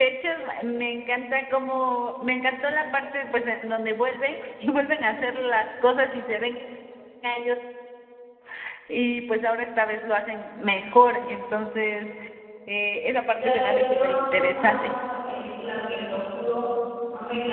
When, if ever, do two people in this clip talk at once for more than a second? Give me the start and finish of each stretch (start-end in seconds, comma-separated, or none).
13.3-14.9